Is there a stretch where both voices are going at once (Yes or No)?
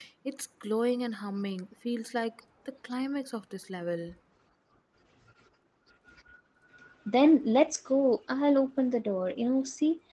No